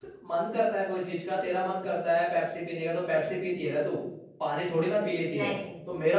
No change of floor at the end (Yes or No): Yes